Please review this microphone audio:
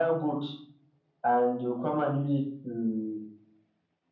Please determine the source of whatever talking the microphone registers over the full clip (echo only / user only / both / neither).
echo only